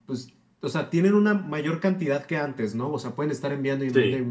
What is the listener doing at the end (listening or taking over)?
listening